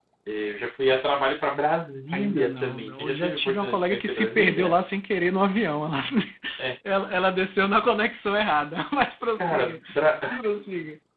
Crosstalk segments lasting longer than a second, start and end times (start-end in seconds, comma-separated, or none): 2.1-4.7